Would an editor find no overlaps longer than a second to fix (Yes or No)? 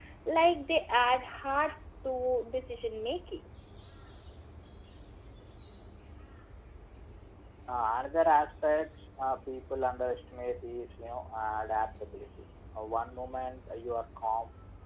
Yes